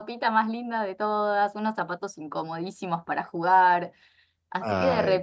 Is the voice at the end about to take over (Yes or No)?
No